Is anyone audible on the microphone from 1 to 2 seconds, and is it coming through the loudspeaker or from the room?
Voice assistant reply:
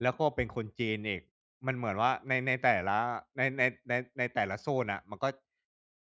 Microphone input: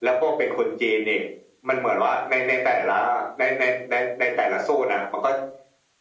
echo only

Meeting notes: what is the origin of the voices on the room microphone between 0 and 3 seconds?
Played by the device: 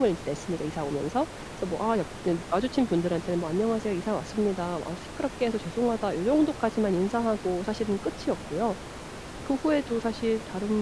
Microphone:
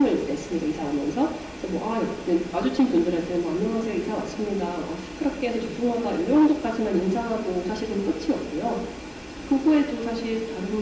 echo only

